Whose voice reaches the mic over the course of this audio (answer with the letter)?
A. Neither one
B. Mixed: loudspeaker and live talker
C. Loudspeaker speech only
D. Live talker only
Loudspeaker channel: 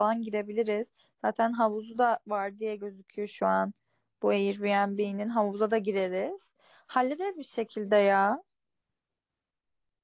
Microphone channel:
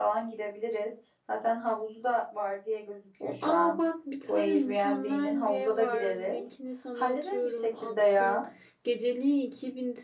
B